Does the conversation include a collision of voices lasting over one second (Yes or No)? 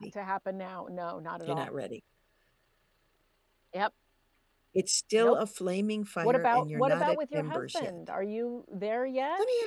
Yes